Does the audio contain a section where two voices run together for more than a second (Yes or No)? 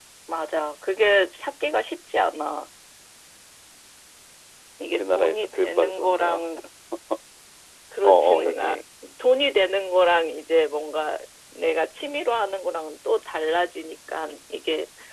Yes